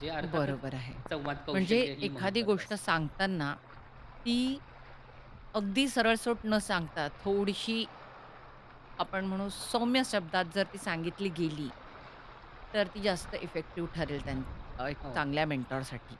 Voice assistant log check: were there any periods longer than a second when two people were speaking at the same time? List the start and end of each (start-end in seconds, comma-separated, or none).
1.5-2.7